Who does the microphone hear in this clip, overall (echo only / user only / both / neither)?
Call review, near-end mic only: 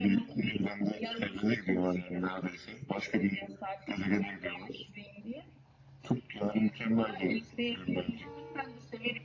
echo only